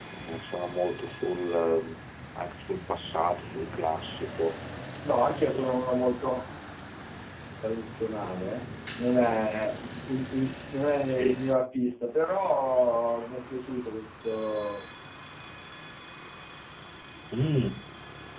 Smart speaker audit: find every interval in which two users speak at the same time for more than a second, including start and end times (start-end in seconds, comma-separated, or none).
none